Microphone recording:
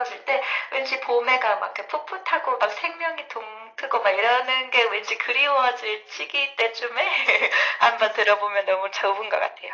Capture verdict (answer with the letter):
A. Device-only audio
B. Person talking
A